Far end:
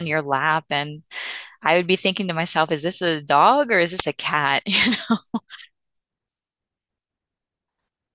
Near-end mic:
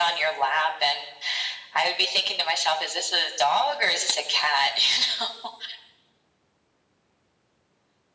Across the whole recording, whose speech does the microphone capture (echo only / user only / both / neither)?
echo only